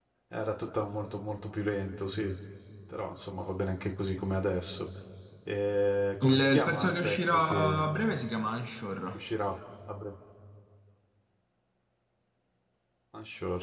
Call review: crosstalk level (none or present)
present